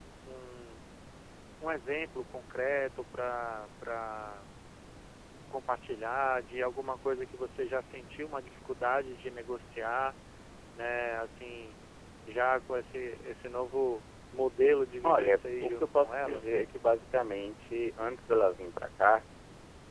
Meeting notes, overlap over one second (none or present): present